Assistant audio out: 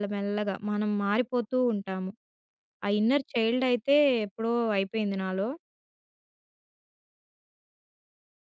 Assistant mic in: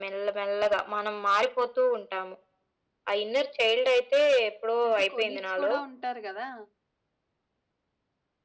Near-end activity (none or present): present